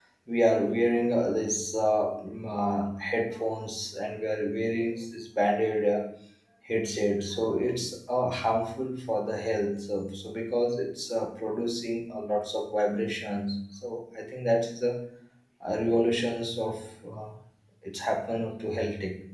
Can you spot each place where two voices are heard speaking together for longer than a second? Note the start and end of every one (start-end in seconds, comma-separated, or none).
none